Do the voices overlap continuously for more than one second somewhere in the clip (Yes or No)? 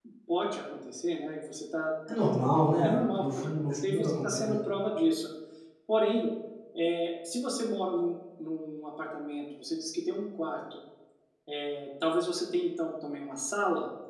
Yes